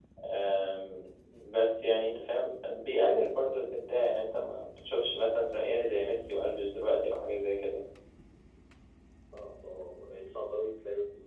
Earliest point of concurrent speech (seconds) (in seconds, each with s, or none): none